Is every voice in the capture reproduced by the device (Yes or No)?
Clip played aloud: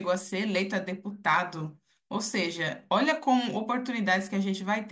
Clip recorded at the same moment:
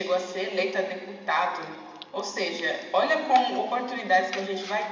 Yes